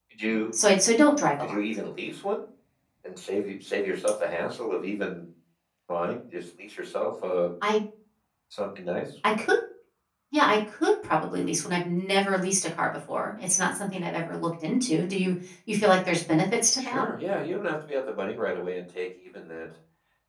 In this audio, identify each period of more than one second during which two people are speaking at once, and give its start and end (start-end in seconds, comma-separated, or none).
none